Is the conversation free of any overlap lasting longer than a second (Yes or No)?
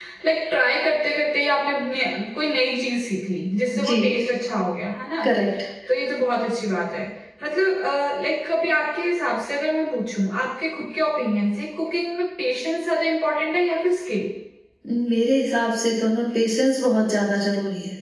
Yes